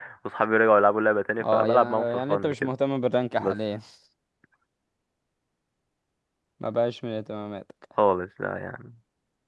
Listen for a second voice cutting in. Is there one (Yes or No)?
Yes